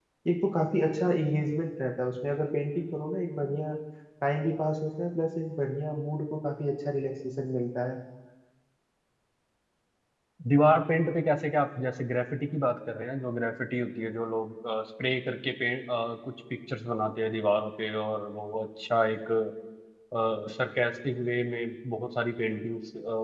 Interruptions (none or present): none